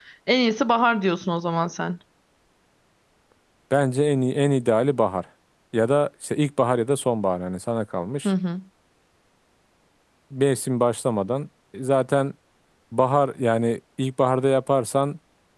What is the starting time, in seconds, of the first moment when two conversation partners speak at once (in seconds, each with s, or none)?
none